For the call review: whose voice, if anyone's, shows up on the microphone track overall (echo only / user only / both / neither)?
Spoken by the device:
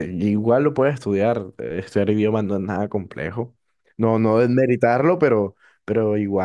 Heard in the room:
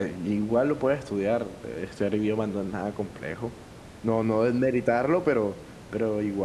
echo only